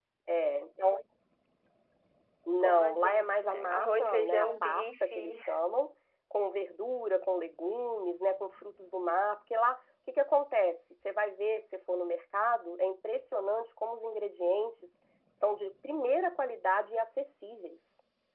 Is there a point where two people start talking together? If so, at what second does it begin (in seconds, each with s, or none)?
2.6 s